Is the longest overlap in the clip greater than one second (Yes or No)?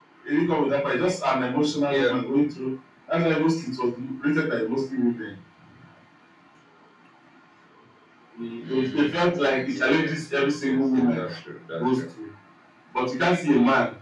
Yes